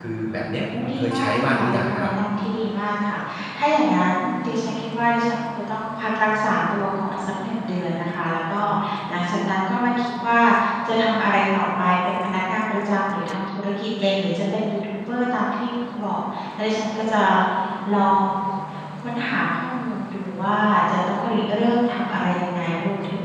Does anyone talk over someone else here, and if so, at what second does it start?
0.5 s

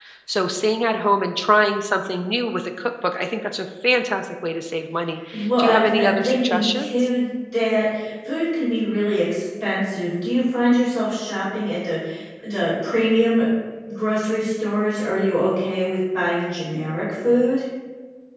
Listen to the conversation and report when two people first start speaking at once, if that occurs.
5.3 s

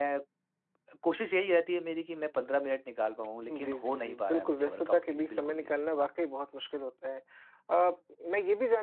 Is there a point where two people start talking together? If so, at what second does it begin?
3.5 s

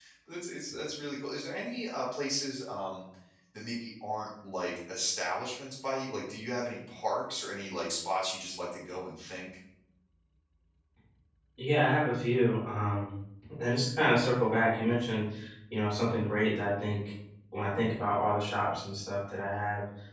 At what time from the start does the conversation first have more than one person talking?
none

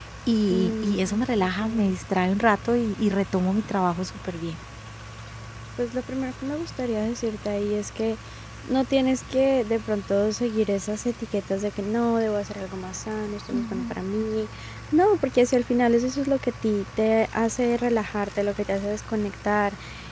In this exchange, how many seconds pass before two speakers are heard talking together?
0.5 s

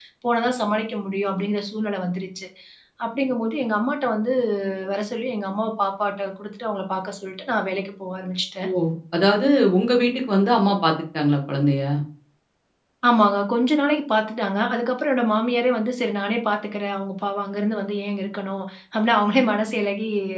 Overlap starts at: none

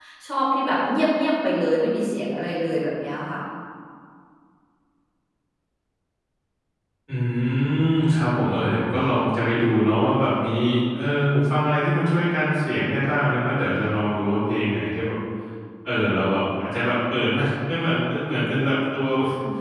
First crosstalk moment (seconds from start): none

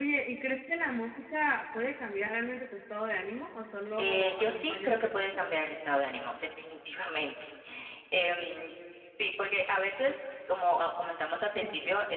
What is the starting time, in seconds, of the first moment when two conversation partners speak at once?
4.0 s

